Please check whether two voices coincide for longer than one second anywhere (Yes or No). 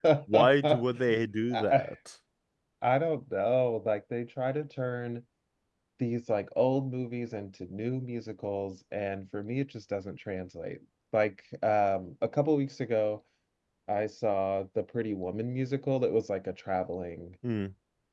No